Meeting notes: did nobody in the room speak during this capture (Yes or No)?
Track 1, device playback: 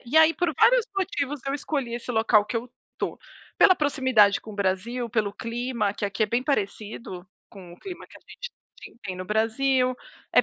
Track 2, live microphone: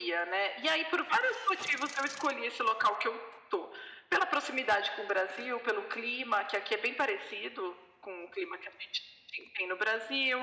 Yes